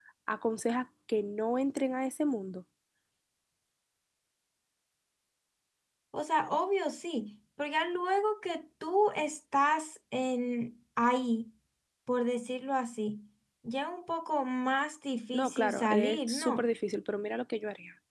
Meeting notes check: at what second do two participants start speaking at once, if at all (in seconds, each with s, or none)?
15.3 s